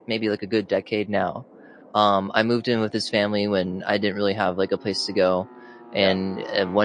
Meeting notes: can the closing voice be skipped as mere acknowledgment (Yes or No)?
Yes